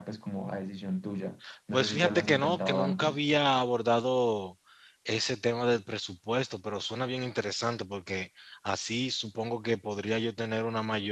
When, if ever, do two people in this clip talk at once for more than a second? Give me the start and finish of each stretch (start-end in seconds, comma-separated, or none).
1.7-3.2